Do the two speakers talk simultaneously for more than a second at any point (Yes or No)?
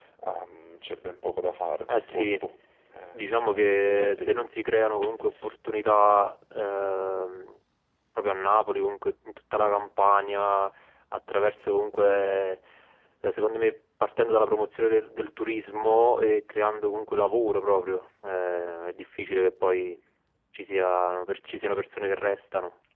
Yes